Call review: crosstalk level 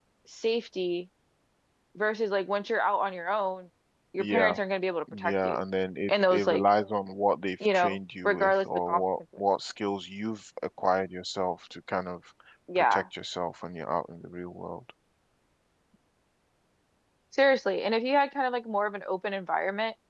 present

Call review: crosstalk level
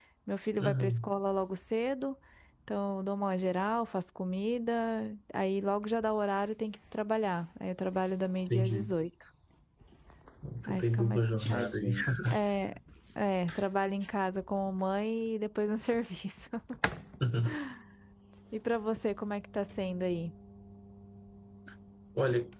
present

